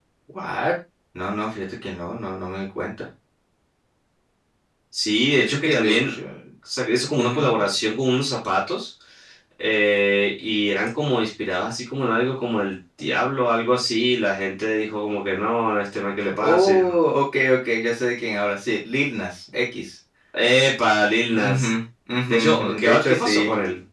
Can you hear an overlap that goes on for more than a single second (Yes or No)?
Yes